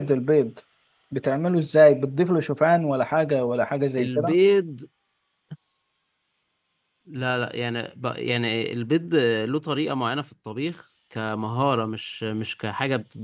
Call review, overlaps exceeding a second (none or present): none